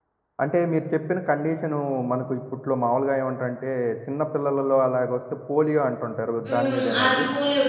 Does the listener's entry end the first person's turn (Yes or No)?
Yes